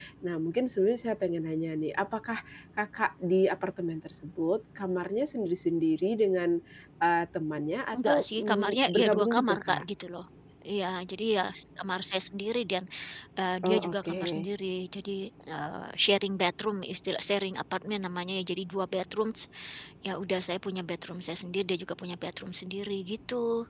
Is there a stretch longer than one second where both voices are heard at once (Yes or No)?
Yes